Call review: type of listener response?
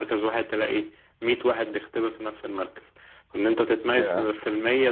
listening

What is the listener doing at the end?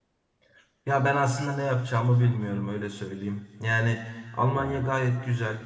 listening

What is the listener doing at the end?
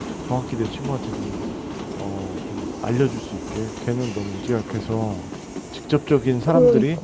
listening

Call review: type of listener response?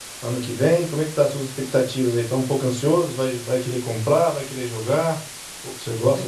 taking over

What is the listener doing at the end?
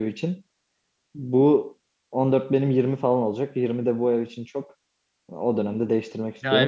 taking over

